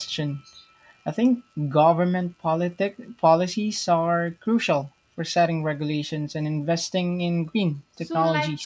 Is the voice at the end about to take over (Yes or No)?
Yes